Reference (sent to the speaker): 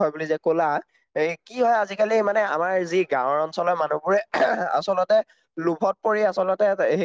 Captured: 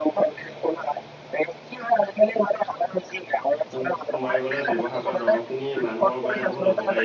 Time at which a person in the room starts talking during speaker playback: 3.7 s

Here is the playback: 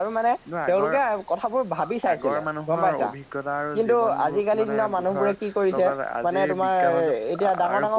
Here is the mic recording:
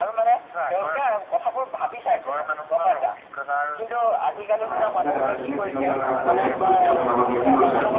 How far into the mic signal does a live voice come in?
4.7 s

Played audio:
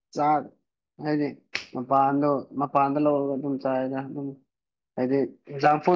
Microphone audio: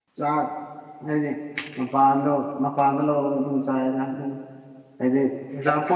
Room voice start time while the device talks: none

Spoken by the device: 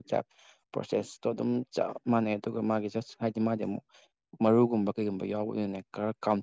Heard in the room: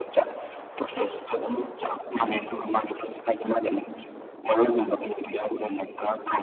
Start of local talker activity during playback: none

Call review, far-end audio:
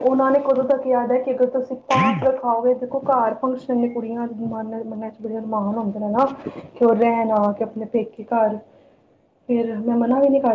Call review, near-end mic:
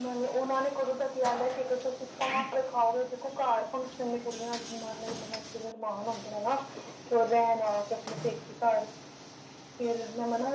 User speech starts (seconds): none

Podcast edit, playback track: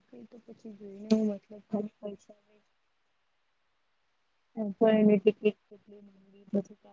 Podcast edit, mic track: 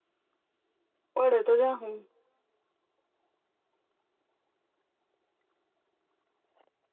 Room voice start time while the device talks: 1.1 s

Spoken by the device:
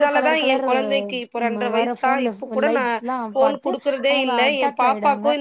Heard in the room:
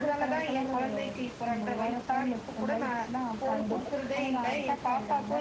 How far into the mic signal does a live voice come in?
3.5 s

